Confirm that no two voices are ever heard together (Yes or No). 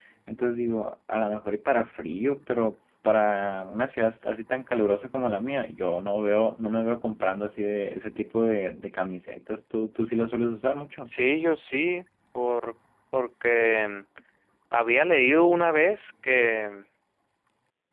Yes